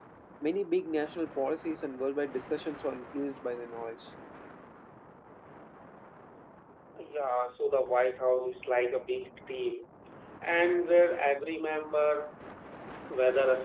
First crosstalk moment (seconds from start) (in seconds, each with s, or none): none